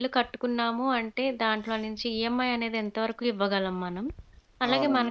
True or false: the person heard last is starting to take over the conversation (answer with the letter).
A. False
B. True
A